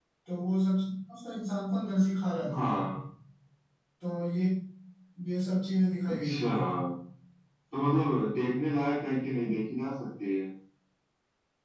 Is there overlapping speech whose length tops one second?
No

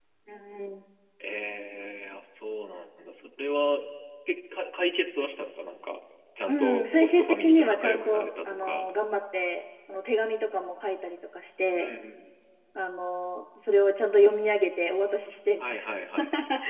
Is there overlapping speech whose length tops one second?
Yes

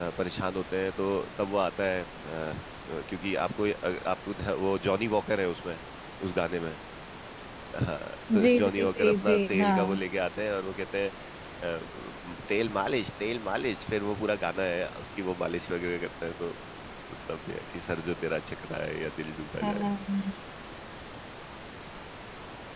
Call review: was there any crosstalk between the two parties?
Yes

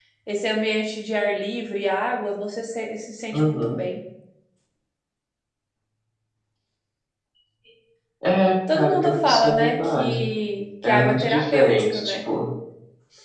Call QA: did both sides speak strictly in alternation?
No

